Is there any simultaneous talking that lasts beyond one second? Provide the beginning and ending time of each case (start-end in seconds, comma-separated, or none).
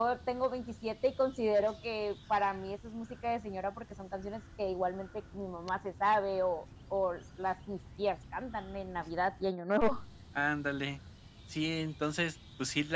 none